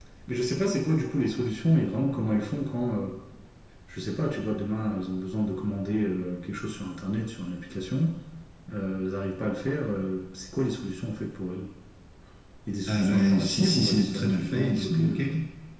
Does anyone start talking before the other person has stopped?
Yes, from 12.9 s

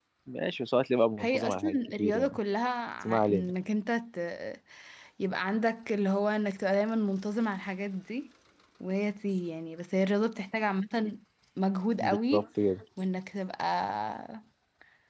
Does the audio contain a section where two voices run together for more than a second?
Yes, from 1.2 s

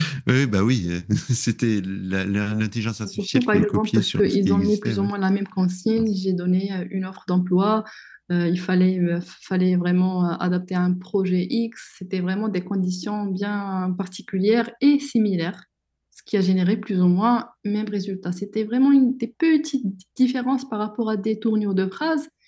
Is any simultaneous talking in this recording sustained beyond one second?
Yes, from 3.0 s

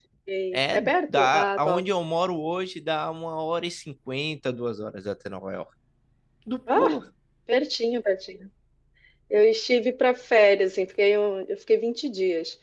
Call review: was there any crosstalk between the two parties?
Yes, from 0.5 s

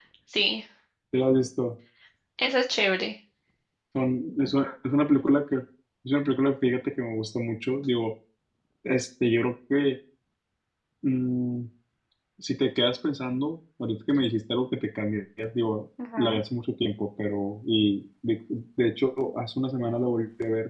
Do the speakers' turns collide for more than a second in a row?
No

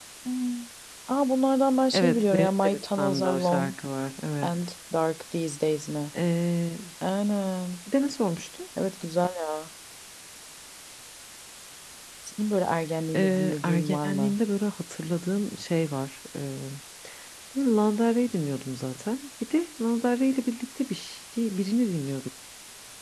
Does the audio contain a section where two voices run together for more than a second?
Yes, from 1.9 s

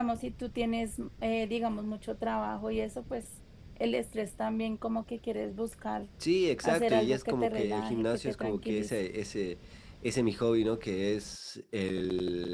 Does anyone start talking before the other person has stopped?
Yes, from 6.6 s

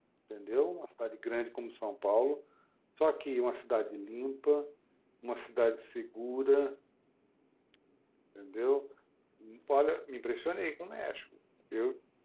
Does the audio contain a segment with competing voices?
No

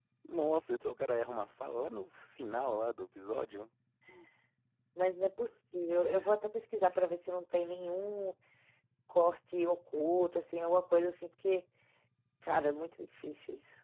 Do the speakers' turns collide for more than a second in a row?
No

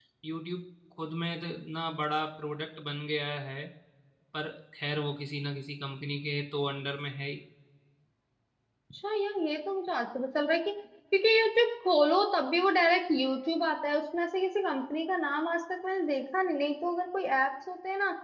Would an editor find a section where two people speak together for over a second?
No

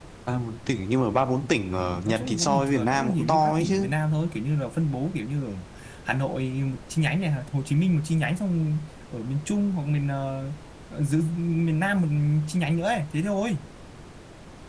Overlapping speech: Yes, from 2.0 s

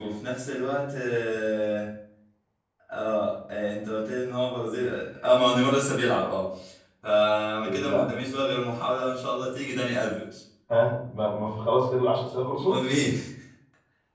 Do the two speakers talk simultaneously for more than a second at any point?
No

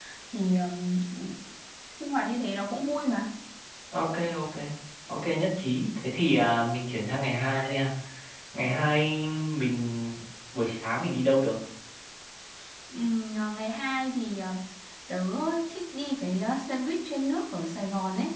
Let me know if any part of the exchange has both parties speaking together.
No

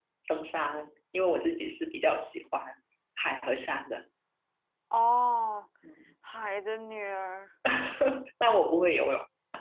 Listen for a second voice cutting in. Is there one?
No

